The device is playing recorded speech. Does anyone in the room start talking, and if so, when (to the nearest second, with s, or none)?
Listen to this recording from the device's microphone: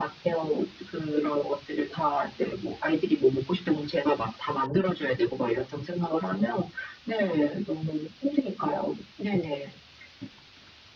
none